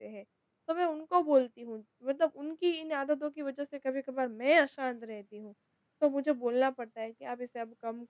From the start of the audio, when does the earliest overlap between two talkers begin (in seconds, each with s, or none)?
none